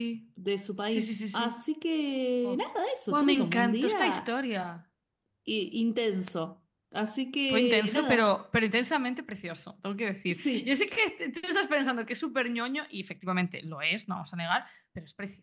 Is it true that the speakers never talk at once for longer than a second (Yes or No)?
No